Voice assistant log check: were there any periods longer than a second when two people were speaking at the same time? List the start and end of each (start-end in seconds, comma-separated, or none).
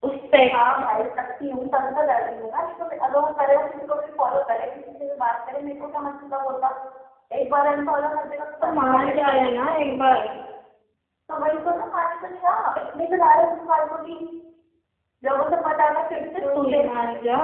8.6-9.9